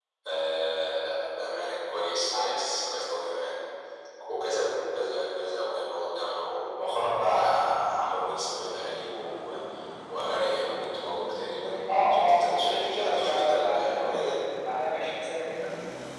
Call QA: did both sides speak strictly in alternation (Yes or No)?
No